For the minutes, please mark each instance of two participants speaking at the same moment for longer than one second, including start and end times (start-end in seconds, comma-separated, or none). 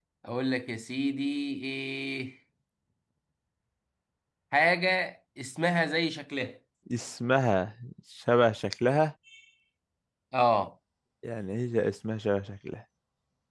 none